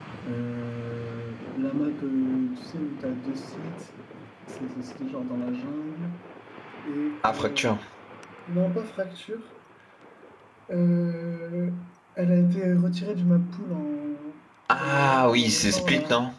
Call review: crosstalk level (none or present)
present